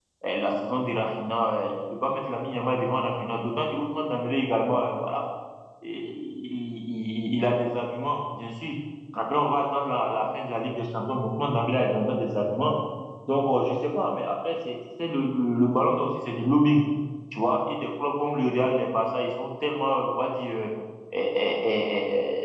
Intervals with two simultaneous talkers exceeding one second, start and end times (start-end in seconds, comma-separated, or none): none